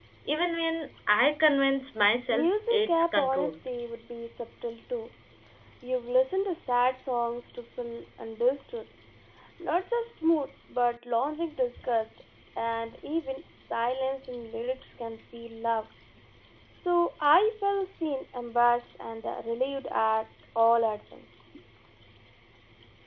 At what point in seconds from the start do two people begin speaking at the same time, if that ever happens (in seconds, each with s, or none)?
2.3 s